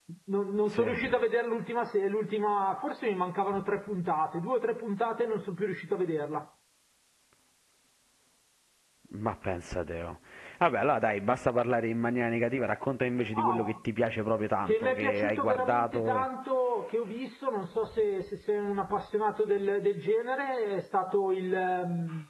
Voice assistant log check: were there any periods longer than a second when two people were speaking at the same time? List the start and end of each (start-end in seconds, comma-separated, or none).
14.7-16.3